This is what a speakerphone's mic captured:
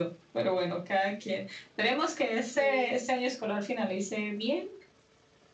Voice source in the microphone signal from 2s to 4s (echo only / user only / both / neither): both